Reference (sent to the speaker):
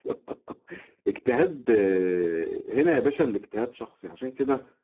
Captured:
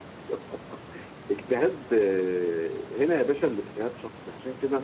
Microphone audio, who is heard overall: echo only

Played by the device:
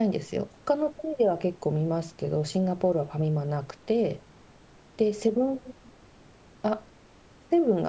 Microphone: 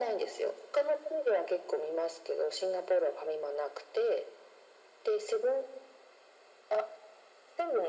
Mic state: echo only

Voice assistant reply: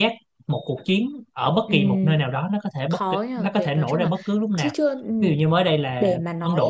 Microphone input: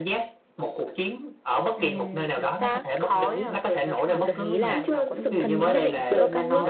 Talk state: both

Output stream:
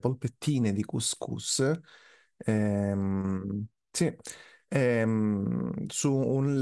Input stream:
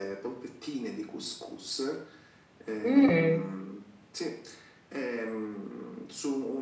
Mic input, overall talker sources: both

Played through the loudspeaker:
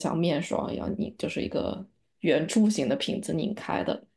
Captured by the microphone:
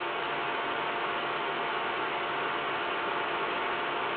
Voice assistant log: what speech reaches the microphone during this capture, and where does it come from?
neither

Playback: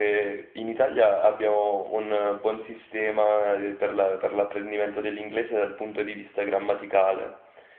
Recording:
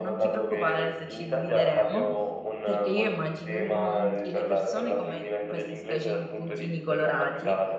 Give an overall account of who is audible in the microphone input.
both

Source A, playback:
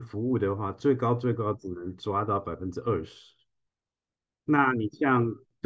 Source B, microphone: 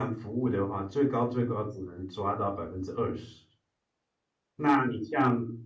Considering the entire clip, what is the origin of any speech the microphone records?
echo only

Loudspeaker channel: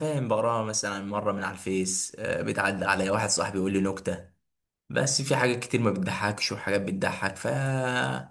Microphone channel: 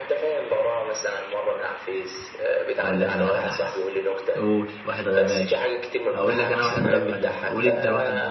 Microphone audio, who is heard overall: both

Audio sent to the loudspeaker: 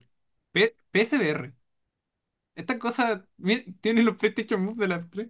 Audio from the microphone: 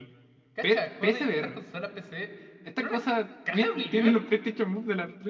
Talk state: both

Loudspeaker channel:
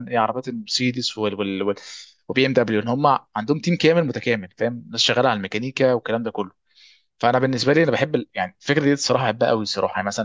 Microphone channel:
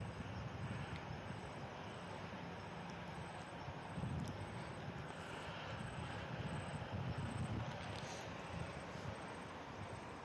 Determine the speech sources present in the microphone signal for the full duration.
neither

